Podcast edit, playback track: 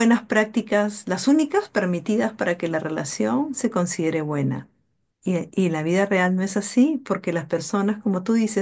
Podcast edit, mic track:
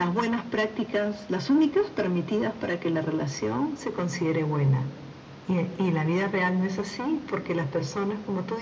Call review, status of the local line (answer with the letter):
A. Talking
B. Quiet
B